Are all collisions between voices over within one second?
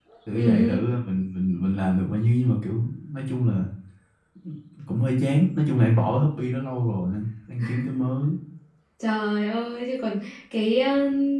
Yes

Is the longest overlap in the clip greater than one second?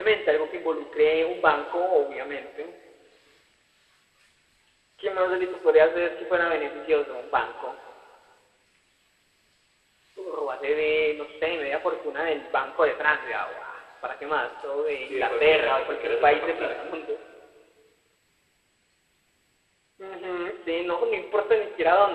Yes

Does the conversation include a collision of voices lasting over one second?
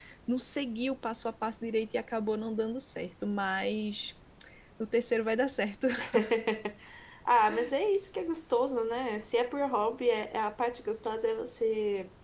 No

